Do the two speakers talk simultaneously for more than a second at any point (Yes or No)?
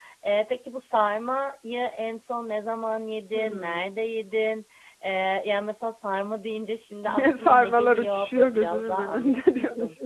Yes